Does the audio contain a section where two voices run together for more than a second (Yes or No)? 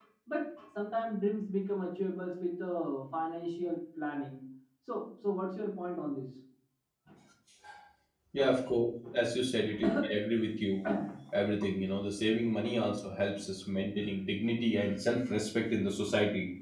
No